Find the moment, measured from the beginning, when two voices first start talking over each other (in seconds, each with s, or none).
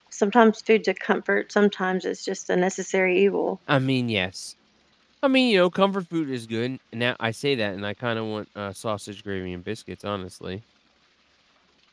none